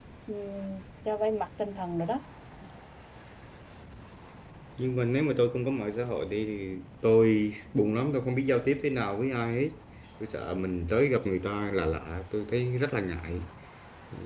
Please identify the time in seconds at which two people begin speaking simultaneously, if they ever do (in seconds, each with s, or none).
none